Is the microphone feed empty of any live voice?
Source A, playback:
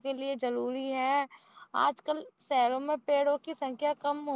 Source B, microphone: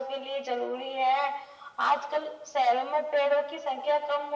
Yes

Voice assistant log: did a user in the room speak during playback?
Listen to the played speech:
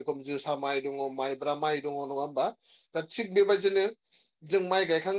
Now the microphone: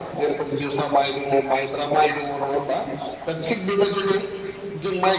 No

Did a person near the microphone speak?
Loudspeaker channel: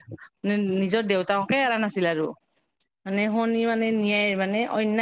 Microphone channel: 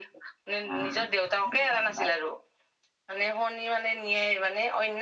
Yes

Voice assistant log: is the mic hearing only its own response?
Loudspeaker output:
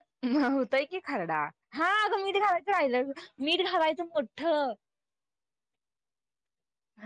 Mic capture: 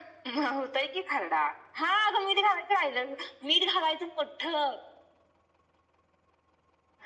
Yes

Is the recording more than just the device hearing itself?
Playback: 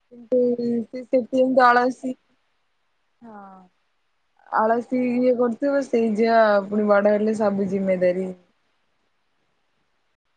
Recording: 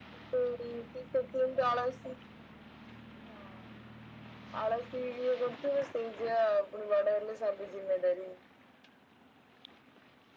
No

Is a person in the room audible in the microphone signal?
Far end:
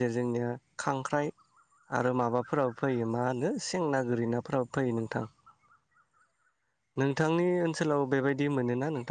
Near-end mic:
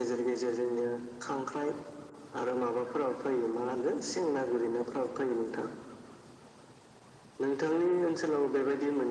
No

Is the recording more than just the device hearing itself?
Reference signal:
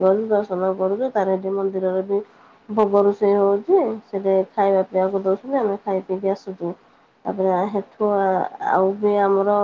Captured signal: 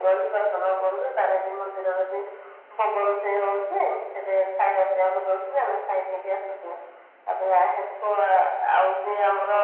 No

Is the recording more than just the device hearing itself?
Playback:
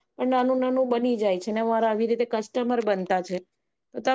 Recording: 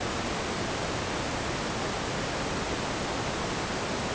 No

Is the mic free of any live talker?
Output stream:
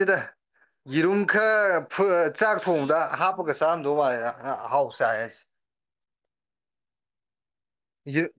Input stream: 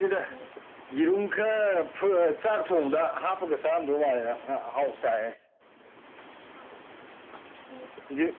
Yes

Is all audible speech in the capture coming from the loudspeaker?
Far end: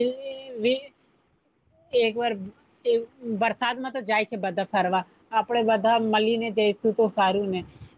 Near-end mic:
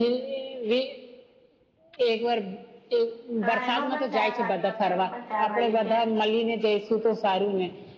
No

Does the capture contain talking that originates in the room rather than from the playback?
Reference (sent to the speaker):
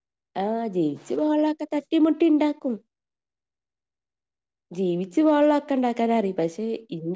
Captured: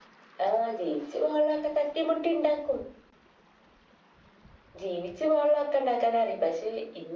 No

